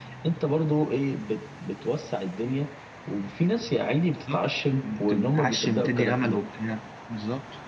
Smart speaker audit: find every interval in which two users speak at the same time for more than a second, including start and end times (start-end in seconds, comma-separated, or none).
4.8-6.4